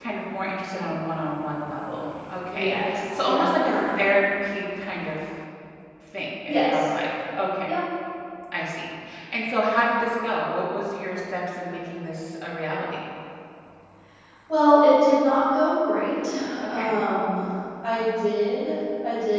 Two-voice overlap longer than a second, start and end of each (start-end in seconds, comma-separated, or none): 2.5-4.2